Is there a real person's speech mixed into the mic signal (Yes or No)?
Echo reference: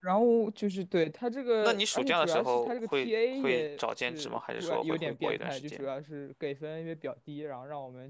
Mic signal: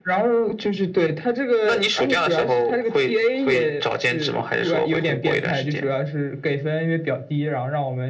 No